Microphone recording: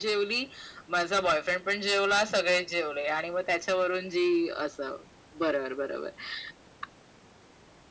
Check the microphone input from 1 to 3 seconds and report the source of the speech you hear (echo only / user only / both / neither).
echo only